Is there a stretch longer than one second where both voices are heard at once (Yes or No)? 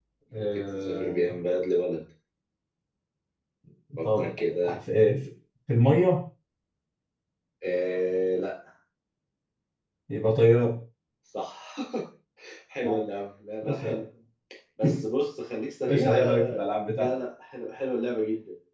Yes